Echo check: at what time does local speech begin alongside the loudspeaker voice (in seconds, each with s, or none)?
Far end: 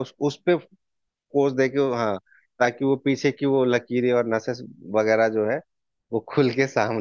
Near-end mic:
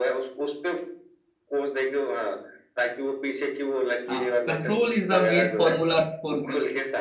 4.1 s